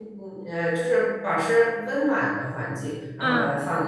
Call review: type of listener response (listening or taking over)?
taking over